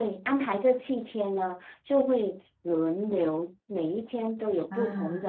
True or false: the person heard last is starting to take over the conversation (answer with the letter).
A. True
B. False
B